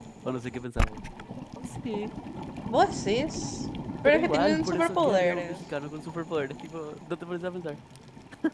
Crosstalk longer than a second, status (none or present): present